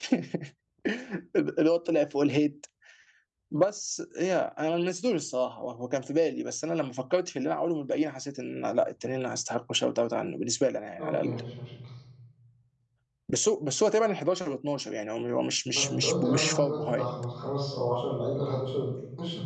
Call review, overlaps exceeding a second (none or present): present